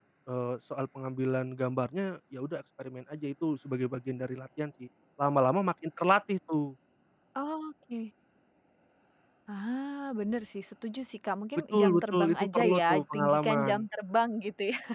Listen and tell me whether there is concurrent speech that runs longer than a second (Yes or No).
Yes